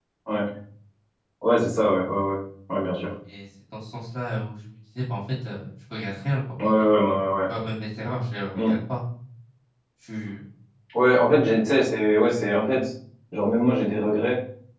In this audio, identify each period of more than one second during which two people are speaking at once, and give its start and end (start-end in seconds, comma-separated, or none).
none